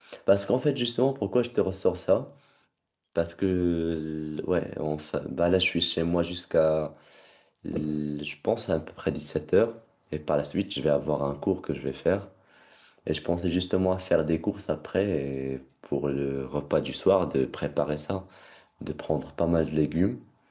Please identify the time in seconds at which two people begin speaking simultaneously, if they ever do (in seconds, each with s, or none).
none